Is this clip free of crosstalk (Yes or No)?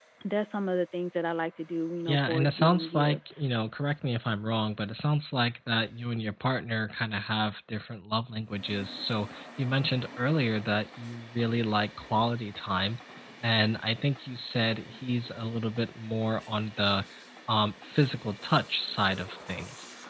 No